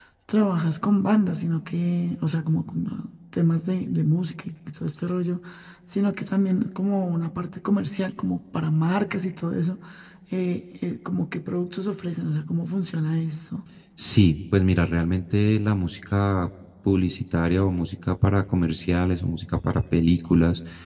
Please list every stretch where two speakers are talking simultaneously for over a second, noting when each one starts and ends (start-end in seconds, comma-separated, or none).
none